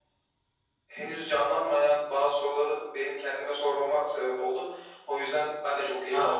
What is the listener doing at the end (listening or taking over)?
taking over